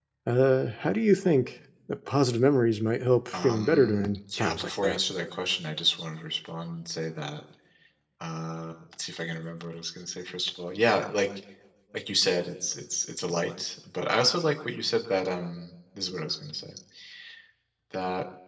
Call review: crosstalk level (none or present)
present